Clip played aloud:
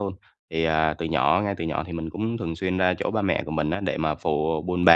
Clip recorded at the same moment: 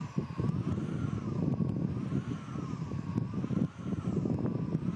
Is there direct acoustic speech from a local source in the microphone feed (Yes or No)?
No